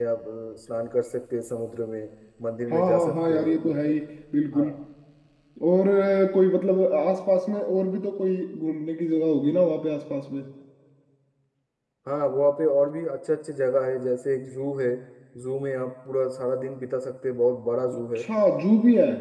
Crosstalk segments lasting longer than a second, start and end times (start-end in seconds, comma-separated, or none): 2.7-3.9